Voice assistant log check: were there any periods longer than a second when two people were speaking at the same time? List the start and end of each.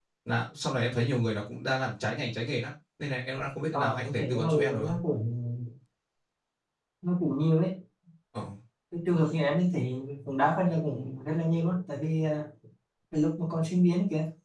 3.7-5.0

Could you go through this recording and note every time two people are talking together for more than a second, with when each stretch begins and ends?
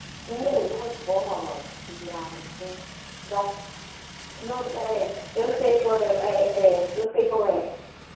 none

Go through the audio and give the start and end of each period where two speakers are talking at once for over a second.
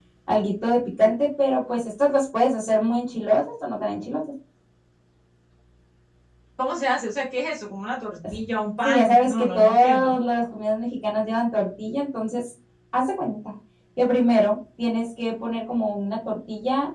8.8-10.2

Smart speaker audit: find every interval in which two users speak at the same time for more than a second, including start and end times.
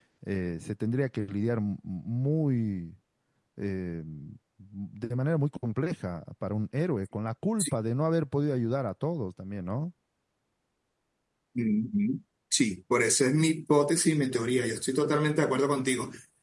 none

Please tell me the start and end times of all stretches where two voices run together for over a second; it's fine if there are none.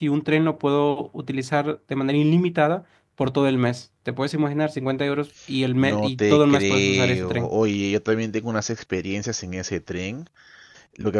5.8-7.5

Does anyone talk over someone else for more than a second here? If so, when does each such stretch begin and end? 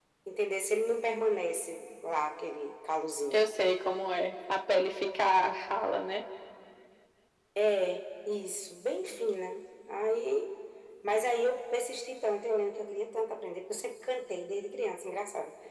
none

